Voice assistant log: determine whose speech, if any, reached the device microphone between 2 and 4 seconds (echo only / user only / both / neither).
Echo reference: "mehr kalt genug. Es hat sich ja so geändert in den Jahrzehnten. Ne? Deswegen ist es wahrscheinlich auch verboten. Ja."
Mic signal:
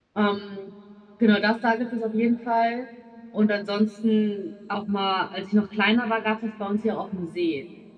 user only